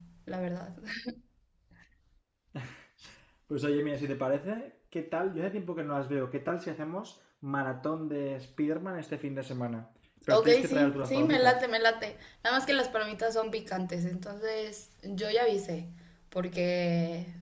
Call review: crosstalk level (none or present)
present